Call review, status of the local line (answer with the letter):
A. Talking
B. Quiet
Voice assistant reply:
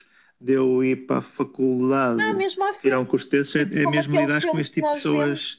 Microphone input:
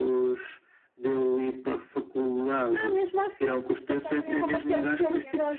A